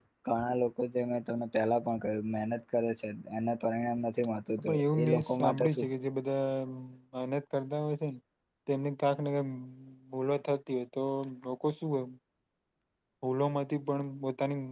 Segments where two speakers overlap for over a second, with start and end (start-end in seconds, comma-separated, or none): 4.6-5.8